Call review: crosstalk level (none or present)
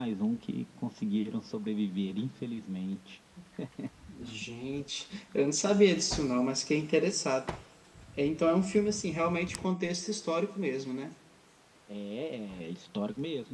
none